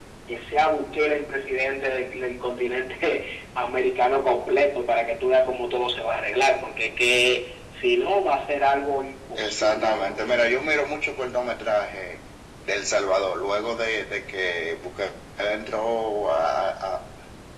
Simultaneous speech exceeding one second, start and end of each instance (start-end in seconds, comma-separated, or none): 9.4-10.7